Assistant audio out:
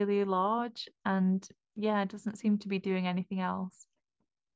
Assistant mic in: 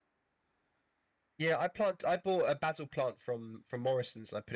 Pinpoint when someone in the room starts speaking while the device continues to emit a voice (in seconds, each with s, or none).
1.4 s